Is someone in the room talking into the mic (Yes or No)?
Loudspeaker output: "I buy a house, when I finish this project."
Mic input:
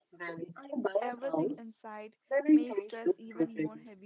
Yes